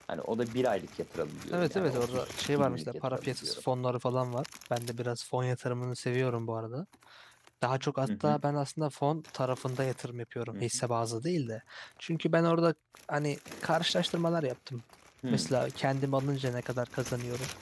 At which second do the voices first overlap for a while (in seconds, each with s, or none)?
1.5 s